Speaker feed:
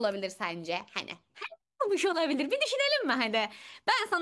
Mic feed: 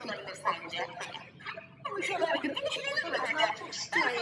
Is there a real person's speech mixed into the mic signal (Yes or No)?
Yes